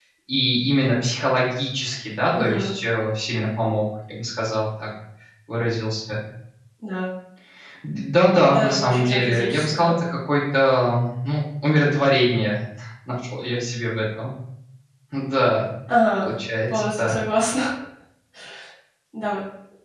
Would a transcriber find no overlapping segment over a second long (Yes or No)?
No